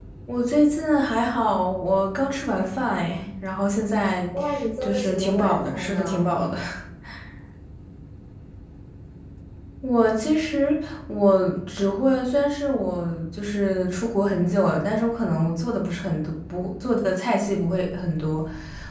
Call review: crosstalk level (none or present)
present